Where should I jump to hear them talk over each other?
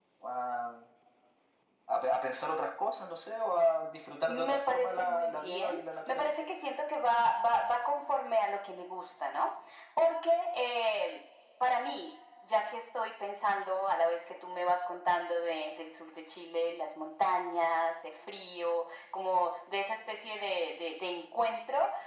4 s

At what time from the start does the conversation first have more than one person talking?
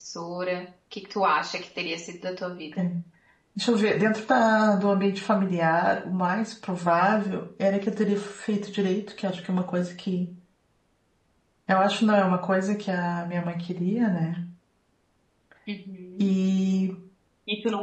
none

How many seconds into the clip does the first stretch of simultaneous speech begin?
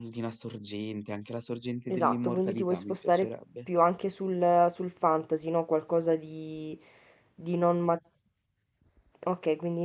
2 s

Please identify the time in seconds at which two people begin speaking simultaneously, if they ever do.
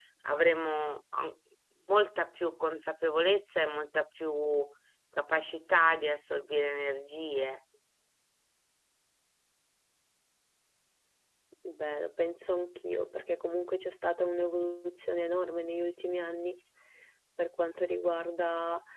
none

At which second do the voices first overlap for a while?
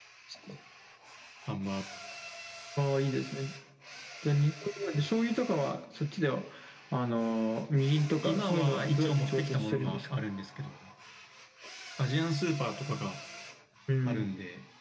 8 s

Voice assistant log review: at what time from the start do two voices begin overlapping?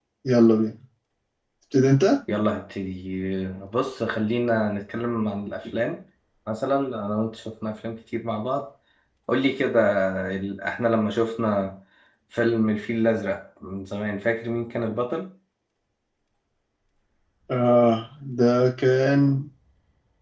none

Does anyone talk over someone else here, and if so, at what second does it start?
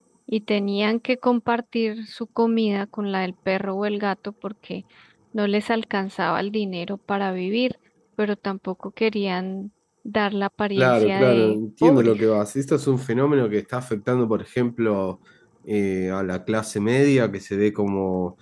11 s

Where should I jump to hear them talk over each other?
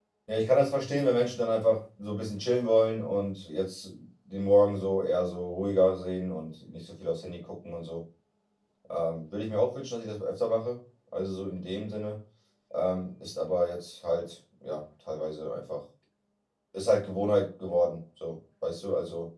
none

